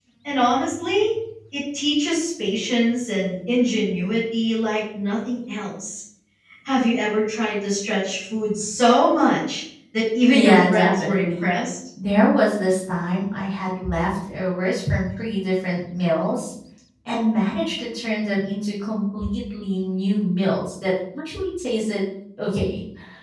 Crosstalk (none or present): present